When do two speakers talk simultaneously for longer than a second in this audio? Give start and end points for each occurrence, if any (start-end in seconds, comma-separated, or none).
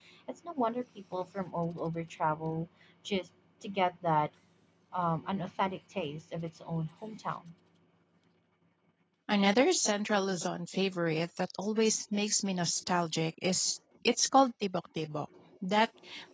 none